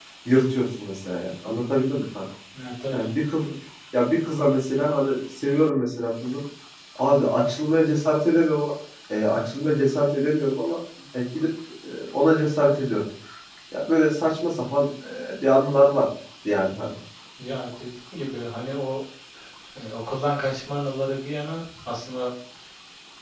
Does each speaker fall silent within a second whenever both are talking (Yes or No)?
Yes